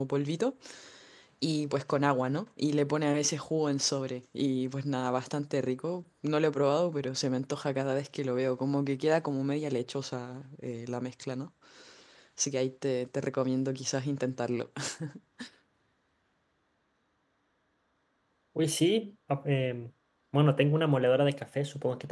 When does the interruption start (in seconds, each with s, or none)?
none